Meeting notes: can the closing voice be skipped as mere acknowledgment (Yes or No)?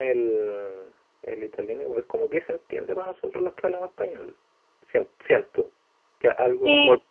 Yes